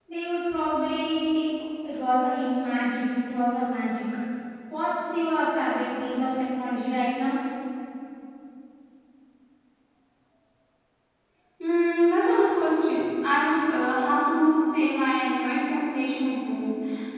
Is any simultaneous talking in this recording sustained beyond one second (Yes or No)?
No